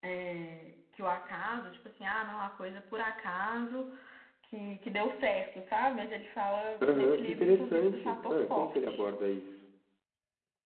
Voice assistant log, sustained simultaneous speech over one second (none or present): present